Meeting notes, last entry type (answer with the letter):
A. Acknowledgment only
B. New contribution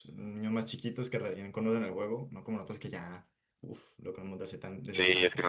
B